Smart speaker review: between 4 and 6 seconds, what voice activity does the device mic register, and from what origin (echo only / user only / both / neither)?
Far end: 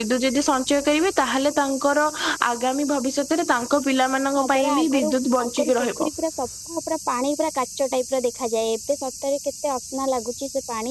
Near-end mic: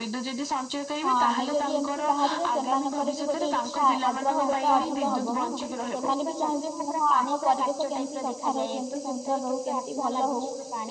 both